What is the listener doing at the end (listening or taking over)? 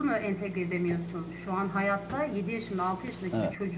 listening